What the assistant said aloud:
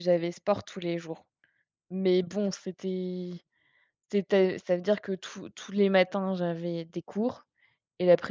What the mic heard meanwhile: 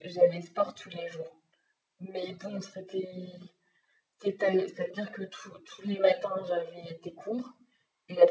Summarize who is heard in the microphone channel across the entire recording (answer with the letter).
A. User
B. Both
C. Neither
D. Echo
D